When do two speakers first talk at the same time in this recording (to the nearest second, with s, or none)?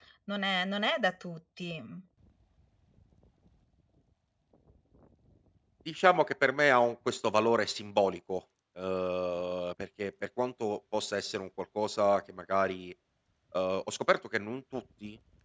none